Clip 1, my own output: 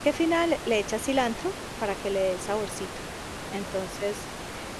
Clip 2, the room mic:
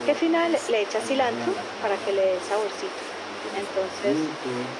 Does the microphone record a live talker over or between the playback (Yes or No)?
Yes